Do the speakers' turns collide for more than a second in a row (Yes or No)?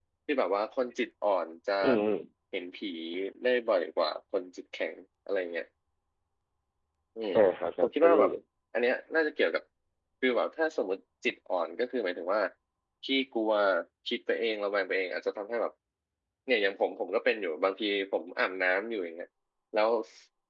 No